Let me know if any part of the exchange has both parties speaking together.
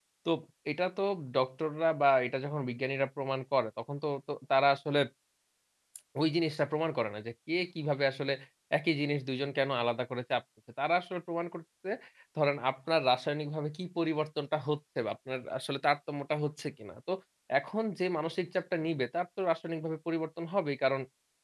No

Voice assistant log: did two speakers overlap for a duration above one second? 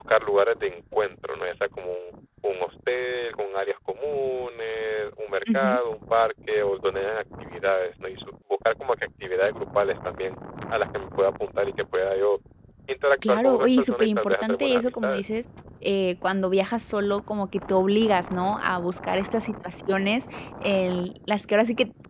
Yes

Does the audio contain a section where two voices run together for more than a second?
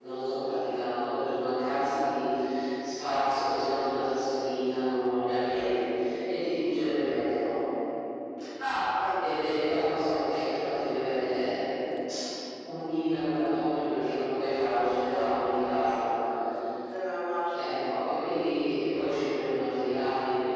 No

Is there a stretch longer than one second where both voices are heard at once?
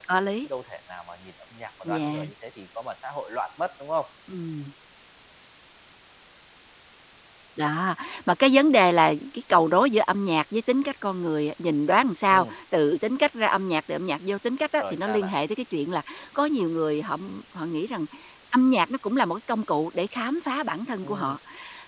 No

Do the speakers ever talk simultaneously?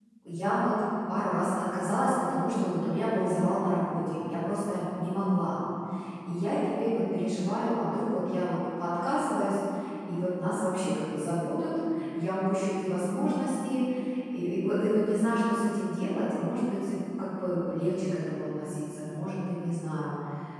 No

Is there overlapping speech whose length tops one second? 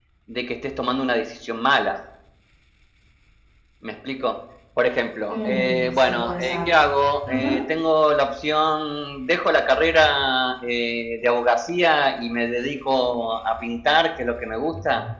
Yes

